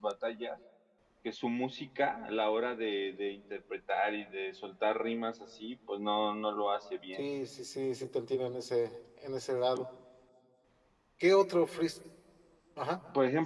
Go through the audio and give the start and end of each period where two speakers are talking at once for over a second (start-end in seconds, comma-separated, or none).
none